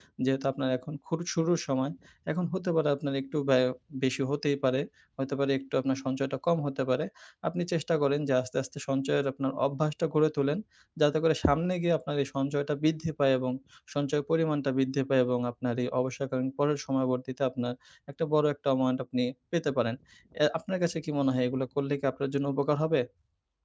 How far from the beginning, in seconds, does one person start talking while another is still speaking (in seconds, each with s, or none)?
none